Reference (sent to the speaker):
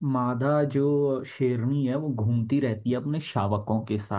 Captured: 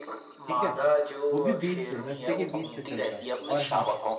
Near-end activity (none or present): present